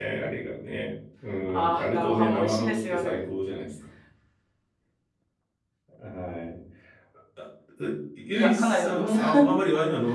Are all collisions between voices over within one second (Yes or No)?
No